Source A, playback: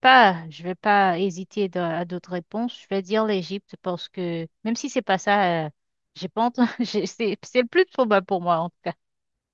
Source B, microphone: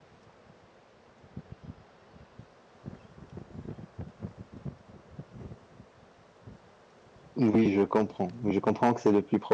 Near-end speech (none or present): present